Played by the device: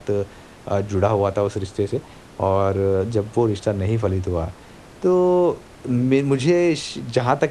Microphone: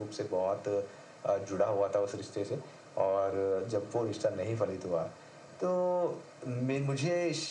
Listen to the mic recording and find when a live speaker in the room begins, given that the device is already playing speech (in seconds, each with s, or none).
none